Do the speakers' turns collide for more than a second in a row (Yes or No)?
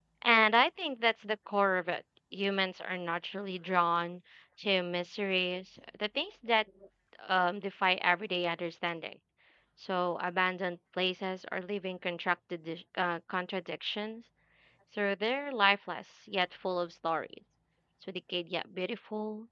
No